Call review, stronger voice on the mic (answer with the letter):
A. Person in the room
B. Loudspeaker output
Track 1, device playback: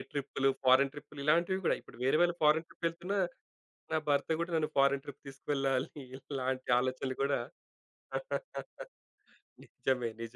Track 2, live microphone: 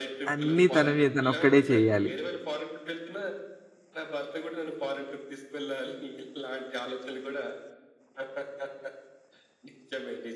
A